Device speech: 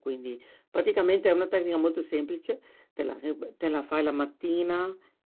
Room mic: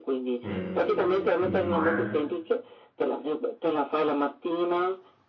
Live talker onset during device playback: 0 s

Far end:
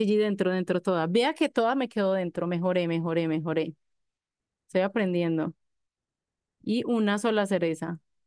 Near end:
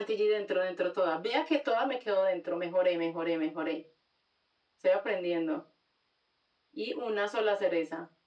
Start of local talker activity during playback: none

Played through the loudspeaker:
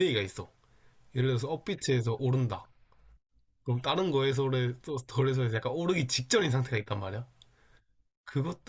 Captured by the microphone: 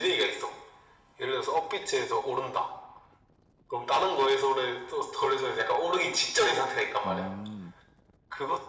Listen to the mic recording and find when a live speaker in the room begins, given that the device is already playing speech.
7 s

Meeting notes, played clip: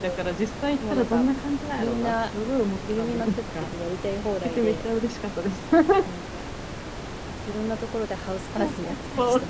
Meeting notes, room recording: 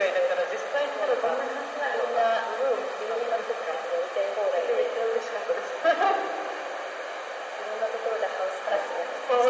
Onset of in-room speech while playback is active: none

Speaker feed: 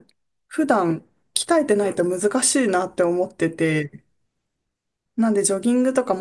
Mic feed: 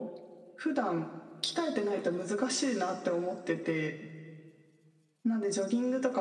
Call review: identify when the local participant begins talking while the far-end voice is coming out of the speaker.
none

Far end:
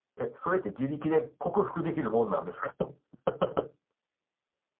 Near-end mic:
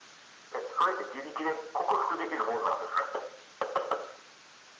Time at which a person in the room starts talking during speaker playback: none

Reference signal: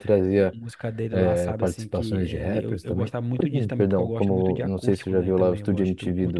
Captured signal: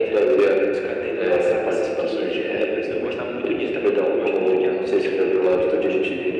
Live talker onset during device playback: none

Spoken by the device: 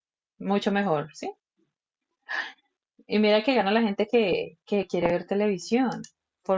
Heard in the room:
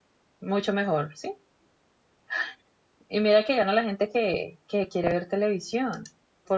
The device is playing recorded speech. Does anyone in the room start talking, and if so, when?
none

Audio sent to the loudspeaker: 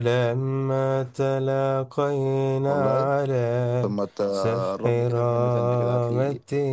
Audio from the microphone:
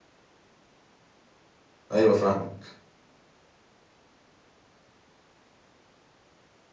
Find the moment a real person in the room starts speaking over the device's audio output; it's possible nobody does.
2 s

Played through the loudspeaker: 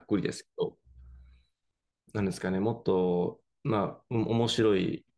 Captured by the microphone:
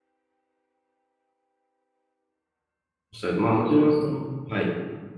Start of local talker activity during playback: 3 s

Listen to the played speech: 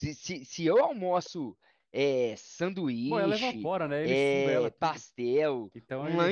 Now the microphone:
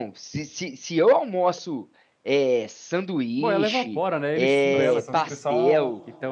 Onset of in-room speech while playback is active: 5 s

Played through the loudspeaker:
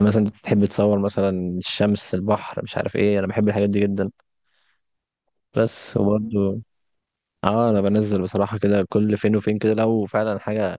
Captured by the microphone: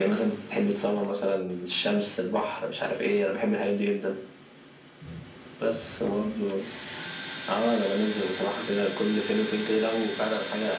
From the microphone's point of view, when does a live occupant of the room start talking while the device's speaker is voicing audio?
none

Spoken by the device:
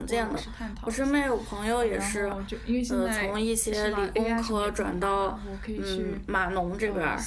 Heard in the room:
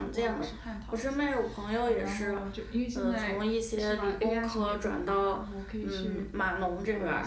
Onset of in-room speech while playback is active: none

